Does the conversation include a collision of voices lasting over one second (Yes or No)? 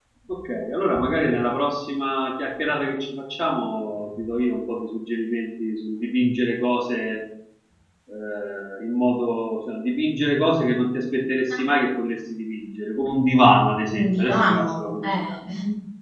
Yes